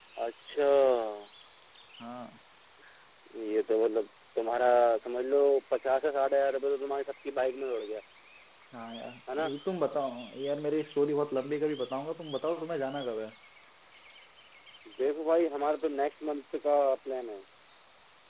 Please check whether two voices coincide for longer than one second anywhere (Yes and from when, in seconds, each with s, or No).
No